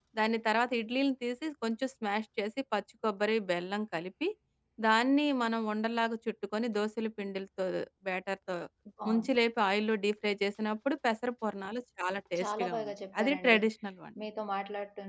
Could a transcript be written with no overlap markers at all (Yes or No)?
No